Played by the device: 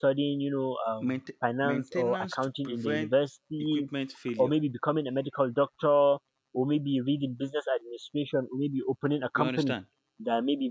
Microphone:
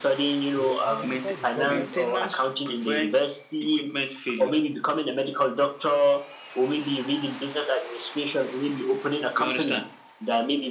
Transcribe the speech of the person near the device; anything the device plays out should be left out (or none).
You identify the problem.